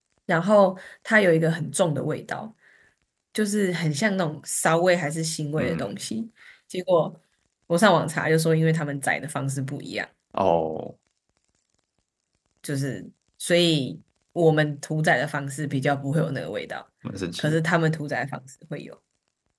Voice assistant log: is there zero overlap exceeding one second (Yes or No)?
Yes